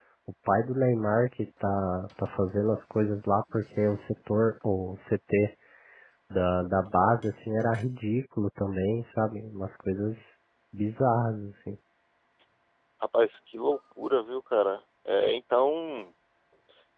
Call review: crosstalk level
none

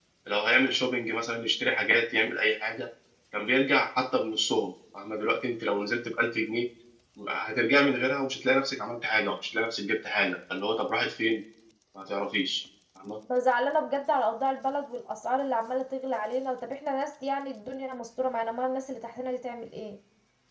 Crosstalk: none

